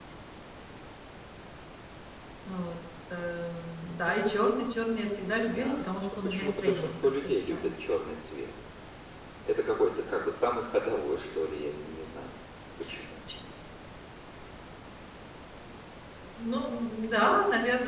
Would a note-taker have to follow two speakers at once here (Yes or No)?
Yes